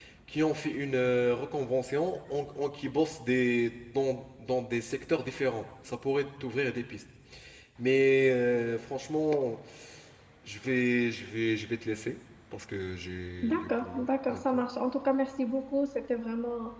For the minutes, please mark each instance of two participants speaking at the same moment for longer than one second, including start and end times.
13.4-14.7

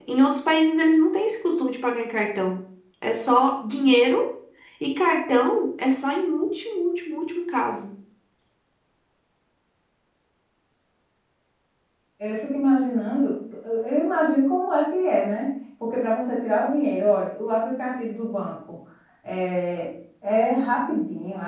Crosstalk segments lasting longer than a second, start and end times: none

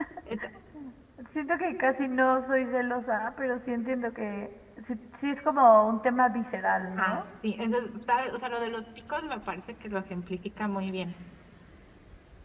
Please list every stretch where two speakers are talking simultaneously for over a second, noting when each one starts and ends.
none

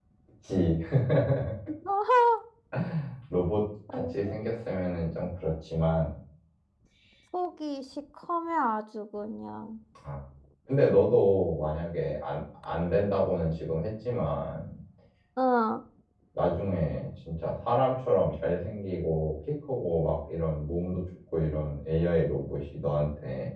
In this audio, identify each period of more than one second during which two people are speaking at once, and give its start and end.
none

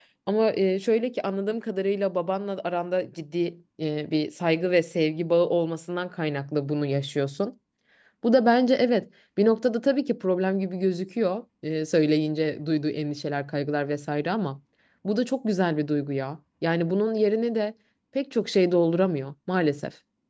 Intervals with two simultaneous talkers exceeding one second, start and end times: none

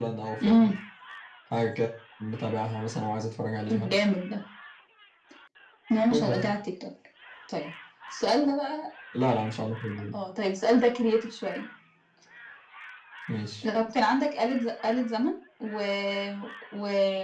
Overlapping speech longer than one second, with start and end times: none

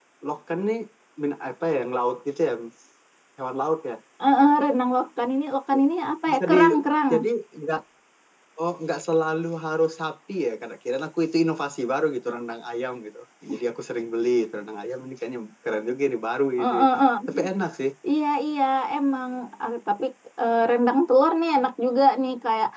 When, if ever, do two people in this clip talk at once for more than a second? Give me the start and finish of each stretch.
none

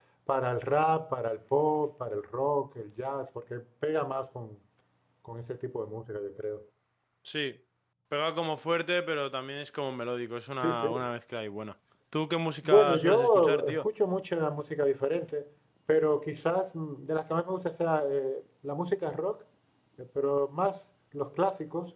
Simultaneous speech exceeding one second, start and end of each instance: 12.6-13.9

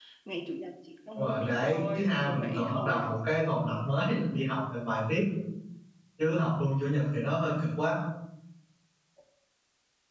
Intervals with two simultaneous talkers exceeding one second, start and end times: 1.2-3.1

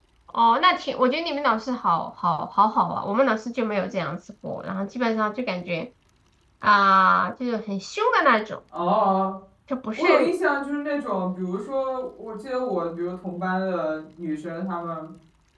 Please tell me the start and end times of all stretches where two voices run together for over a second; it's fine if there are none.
none

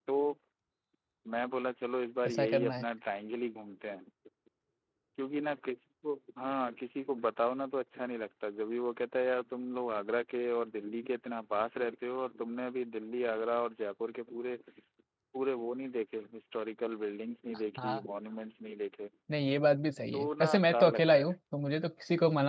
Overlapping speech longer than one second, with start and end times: 20.1-21.3

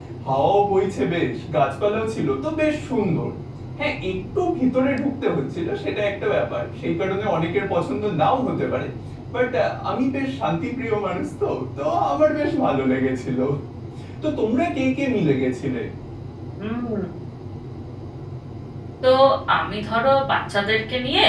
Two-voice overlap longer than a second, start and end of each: none

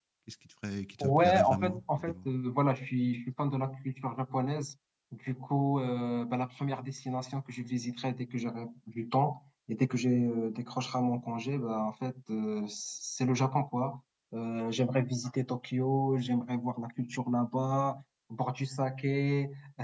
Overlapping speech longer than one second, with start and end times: 1.0-2.3

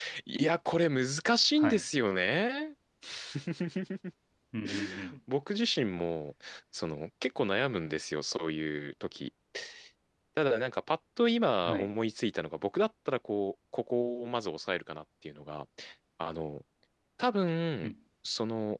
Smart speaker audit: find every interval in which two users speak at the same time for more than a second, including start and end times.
none

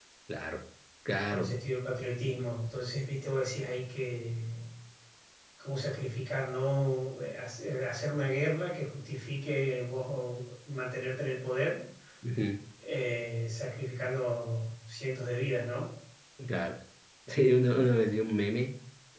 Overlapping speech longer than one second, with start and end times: none

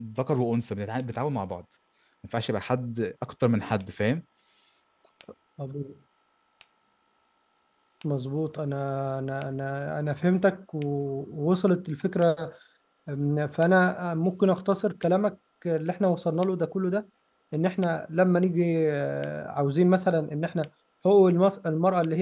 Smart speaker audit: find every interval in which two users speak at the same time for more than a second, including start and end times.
none

